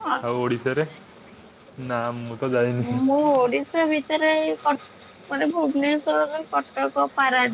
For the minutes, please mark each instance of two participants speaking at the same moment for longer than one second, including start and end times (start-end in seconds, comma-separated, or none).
none